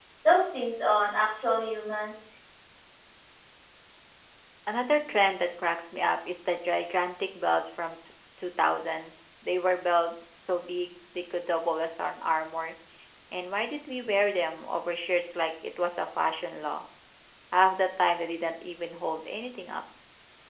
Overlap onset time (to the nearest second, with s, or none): none